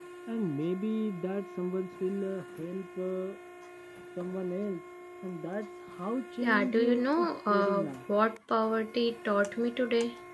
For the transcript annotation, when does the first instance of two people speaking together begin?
6.4 s

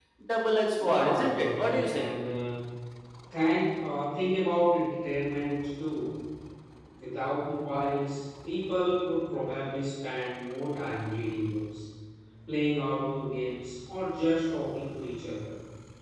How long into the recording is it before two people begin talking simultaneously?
0.8 s

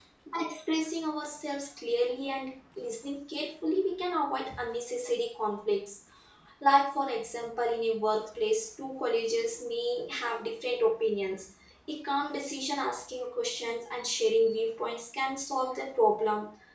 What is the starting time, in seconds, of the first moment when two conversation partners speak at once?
none

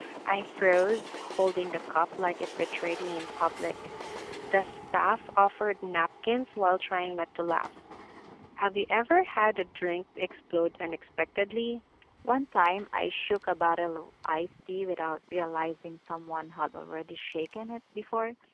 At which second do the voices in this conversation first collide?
none

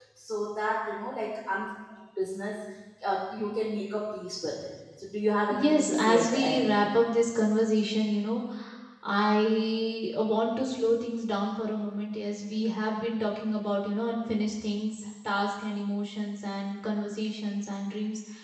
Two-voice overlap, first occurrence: 5.5 s

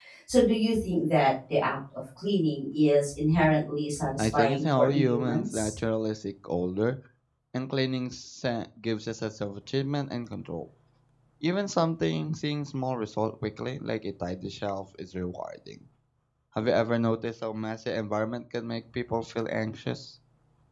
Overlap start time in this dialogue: 4.2 s

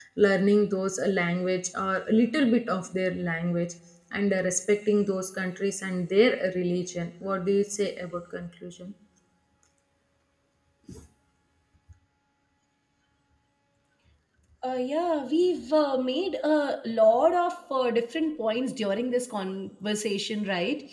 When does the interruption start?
none

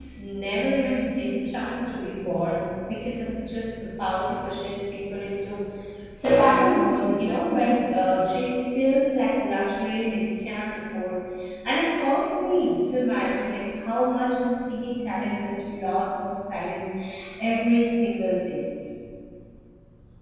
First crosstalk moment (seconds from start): none

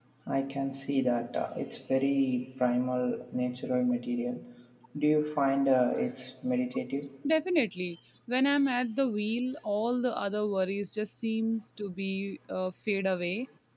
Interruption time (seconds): none

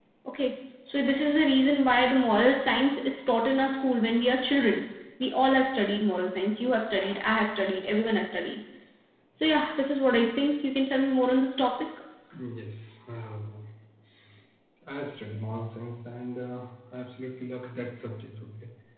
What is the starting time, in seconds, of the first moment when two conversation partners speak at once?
none

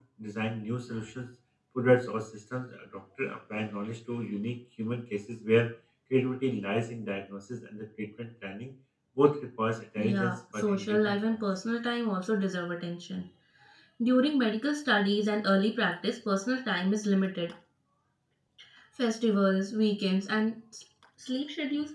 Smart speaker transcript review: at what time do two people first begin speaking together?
10.0 s

